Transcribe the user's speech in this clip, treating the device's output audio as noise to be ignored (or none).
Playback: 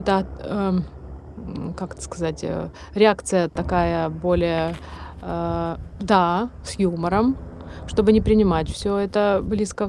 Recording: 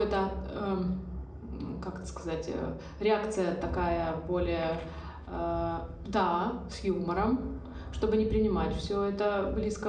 none